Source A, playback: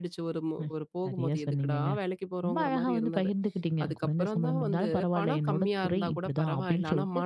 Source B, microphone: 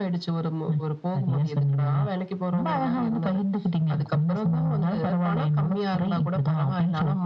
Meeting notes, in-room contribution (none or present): none